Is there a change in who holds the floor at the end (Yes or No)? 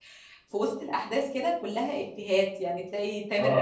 Yes